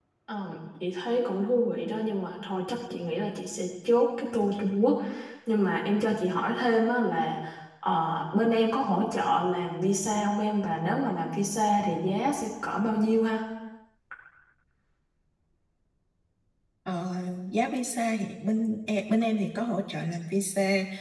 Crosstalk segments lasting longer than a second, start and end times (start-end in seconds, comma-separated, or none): none